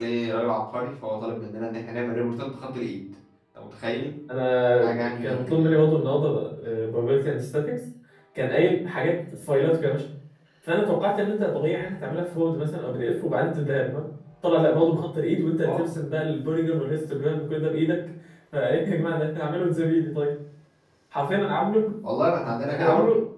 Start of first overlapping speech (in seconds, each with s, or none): 4.8 s